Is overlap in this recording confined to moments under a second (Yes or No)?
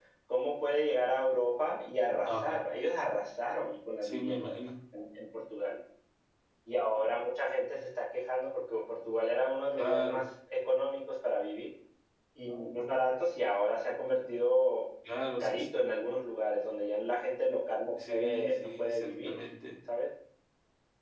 No